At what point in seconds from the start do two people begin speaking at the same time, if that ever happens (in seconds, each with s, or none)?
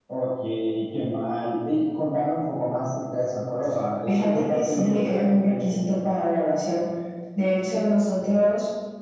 4.1 s